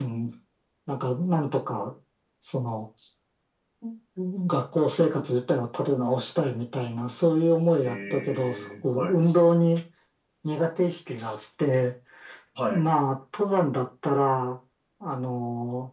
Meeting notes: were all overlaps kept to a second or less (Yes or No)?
No